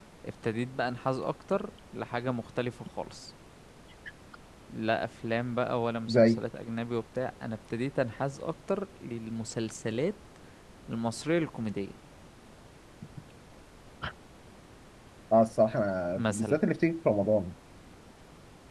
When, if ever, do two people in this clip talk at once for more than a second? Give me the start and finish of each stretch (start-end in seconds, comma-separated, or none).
none